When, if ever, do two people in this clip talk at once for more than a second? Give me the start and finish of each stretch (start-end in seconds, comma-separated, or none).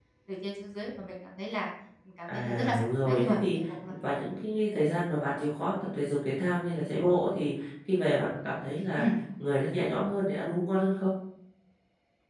2.3-3.5